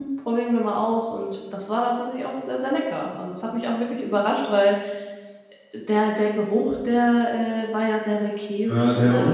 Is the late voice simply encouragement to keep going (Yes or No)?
No